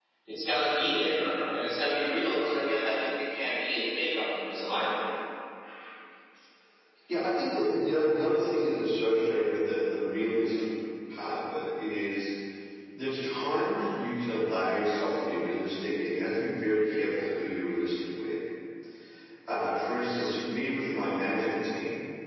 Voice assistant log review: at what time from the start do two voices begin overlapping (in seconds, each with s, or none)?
none